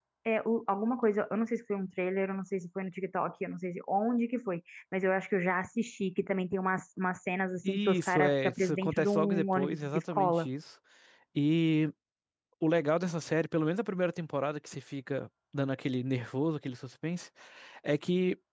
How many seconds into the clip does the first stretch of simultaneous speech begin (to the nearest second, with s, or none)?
8 s